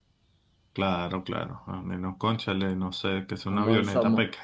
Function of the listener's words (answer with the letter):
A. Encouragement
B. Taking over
B